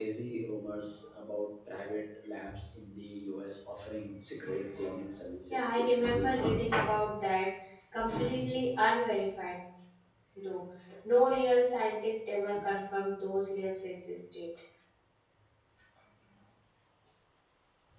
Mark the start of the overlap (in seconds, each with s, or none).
5.5 s